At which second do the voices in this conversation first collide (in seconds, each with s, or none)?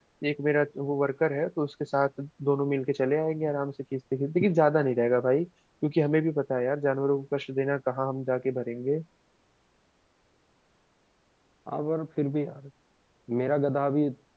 none